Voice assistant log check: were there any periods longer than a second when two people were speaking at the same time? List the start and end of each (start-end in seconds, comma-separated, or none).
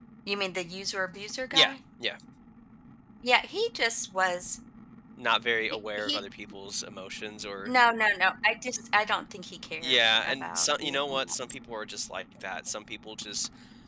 9.8-11.3